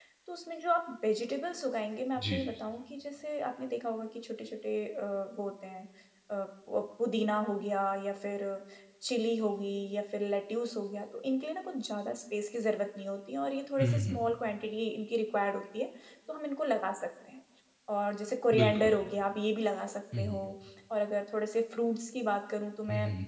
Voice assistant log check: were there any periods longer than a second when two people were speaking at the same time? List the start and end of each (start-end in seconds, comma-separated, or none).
none